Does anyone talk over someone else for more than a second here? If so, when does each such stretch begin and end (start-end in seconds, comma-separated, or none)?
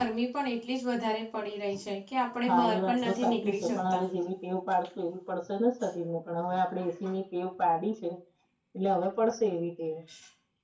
2.5-4.0